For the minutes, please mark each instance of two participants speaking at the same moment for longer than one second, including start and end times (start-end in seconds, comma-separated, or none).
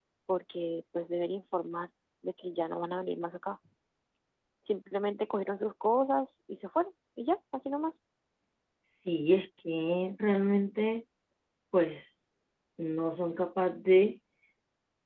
none